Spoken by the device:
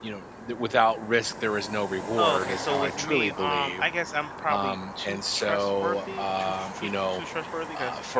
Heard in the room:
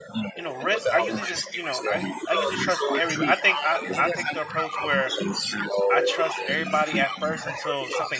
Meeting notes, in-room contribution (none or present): present